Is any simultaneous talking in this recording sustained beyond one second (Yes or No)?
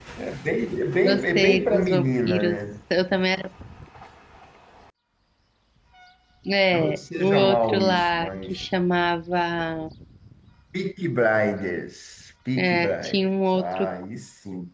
Yes